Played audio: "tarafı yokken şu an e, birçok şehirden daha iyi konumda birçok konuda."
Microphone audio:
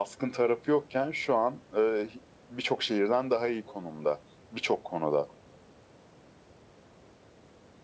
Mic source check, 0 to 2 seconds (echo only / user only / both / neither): echo only